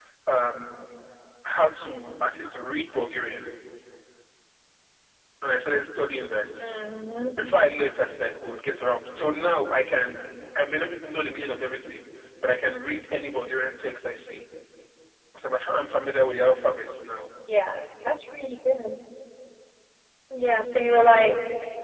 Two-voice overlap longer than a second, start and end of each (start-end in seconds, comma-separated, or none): none